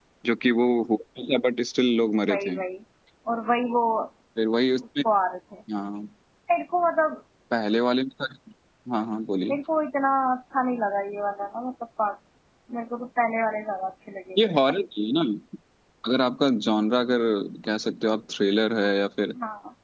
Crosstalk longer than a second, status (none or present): none